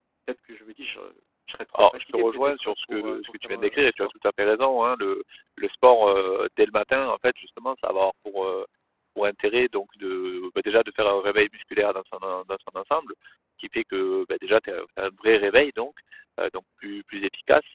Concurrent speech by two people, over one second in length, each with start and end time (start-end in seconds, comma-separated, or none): 1.9-4.1